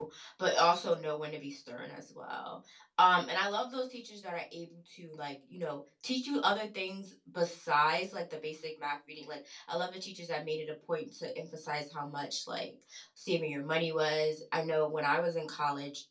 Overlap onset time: none

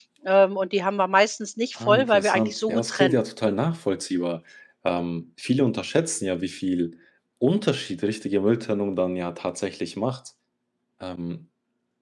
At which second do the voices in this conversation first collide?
2 s

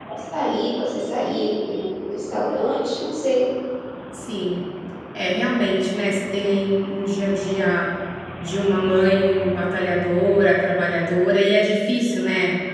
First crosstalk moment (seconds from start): none

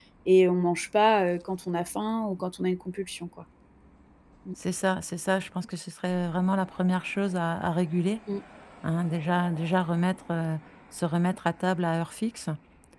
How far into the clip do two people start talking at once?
none

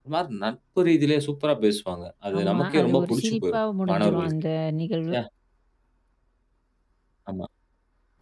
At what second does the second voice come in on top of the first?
2 s

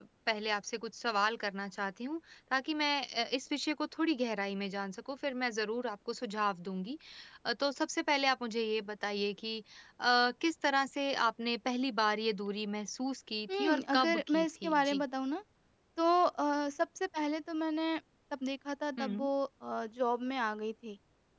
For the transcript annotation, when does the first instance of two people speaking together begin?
14 s

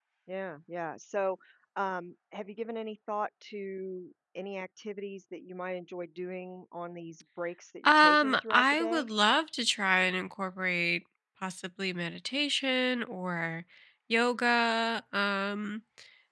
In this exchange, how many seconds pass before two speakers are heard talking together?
8 s

